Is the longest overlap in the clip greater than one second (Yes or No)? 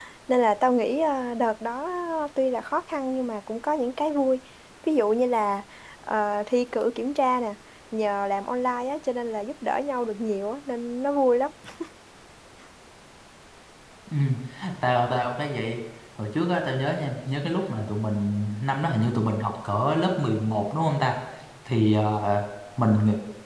No